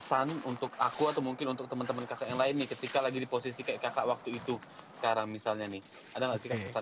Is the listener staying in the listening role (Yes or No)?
No